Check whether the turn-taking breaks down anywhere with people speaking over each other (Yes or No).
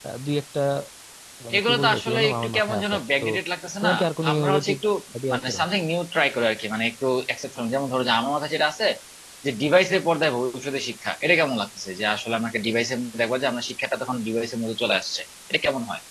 Yes